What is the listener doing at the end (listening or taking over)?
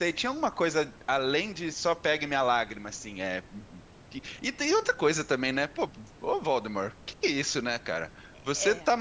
listening